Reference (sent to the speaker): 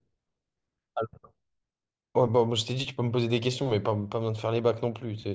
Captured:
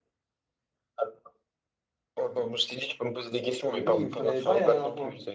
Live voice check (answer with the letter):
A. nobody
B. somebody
B